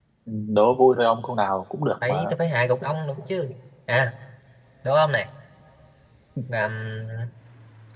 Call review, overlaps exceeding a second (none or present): none